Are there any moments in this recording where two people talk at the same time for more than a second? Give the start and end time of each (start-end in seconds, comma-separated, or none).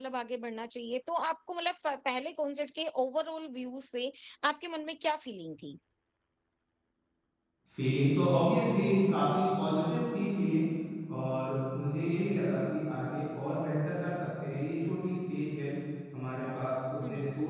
none